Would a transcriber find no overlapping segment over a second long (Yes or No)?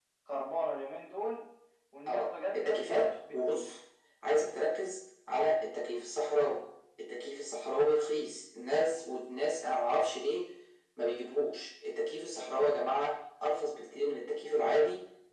No